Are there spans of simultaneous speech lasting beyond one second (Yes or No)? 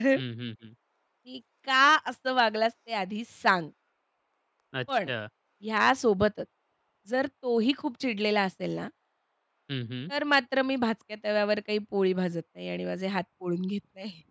No